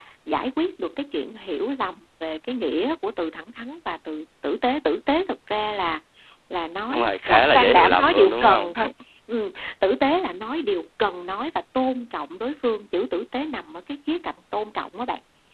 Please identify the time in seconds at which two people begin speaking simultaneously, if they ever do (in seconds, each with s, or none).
6.9 s